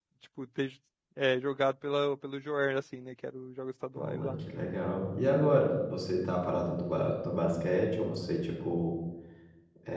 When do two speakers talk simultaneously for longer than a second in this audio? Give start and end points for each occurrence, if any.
none

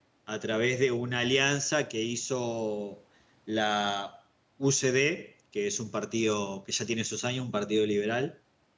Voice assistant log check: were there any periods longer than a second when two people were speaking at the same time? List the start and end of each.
none

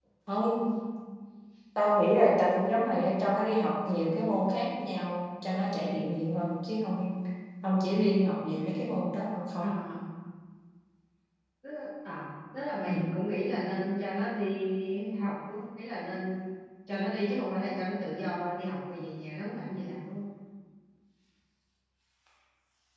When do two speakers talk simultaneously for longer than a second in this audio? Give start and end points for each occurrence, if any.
none

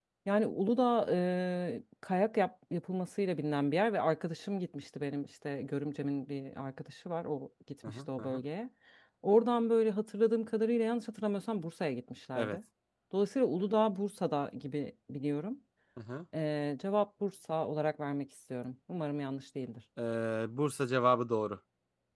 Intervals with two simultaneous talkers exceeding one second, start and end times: none

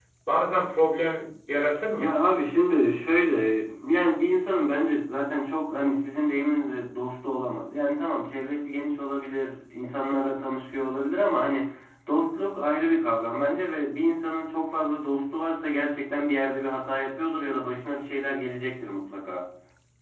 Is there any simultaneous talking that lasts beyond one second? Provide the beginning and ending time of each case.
none

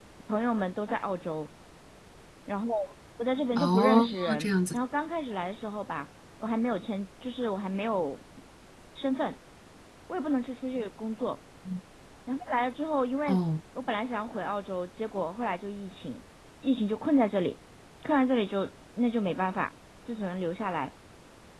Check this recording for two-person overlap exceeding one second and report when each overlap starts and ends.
3.6-4.8

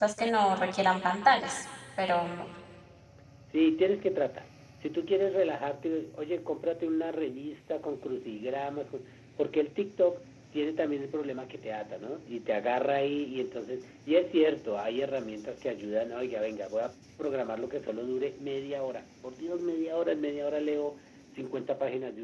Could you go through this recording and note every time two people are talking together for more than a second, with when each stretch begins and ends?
none

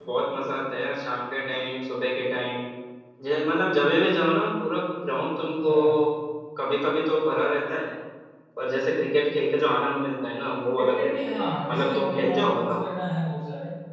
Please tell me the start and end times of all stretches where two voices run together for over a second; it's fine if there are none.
10.8-12.8

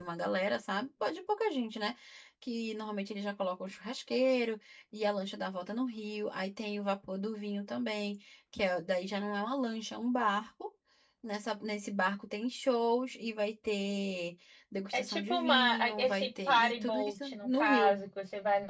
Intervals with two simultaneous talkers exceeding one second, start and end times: 14.9-18.0

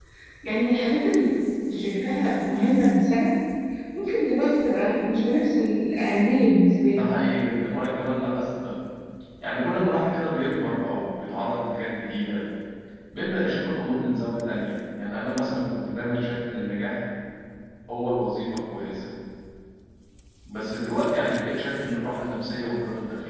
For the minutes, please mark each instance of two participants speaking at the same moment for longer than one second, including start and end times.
none

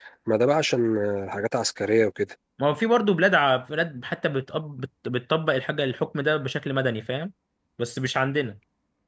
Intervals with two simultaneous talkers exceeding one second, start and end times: none

